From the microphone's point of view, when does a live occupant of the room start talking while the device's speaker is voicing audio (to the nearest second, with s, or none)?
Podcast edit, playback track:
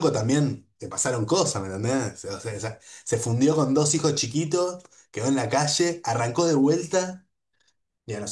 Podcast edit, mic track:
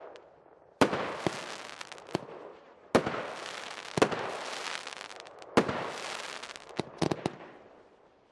none